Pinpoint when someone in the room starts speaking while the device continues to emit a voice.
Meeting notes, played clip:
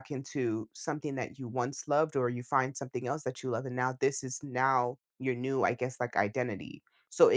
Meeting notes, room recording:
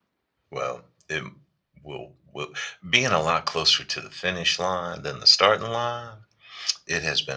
0.5 s

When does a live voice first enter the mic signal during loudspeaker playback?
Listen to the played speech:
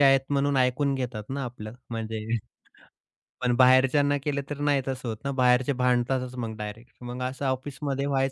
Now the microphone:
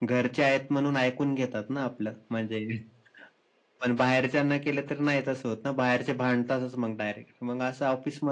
none

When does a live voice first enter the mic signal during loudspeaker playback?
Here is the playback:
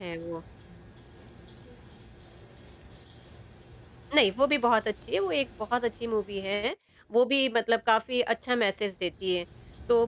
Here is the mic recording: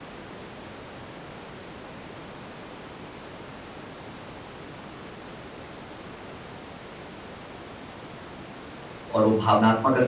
9.1 s

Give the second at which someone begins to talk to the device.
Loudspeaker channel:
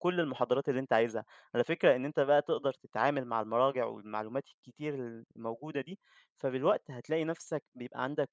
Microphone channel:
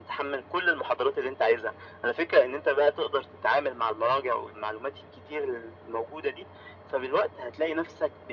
none

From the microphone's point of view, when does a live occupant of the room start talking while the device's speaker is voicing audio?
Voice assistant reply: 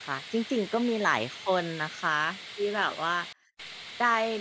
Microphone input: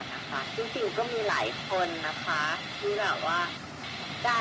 none

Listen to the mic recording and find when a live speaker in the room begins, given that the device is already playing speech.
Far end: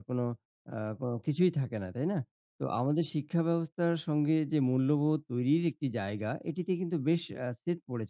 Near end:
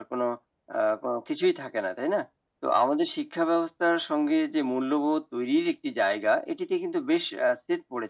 none

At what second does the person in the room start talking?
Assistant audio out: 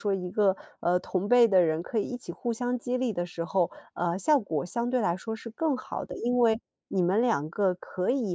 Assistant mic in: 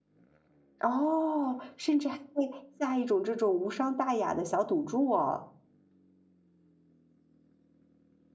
0.8 s

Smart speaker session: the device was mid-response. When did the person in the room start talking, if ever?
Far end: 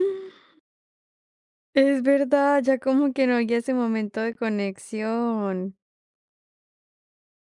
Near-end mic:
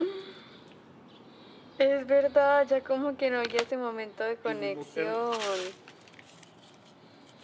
4.4 s

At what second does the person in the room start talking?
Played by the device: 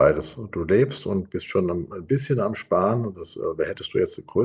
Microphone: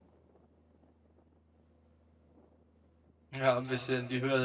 3.3 s

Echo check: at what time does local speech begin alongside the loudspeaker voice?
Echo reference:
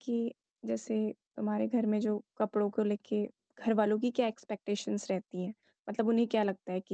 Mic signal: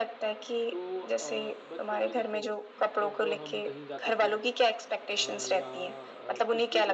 0.7 s

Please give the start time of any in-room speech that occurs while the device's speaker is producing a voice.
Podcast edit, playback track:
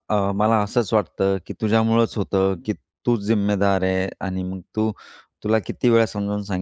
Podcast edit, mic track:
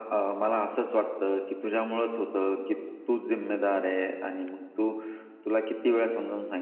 none

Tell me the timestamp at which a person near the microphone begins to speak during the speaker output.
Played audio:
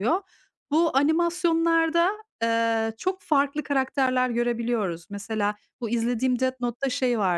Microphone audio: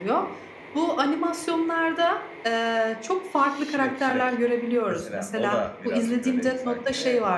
3.3 s

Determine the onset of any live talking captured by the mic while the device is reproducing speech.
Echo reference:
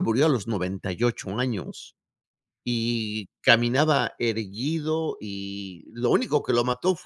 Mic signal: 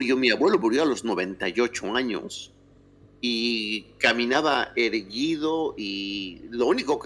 none

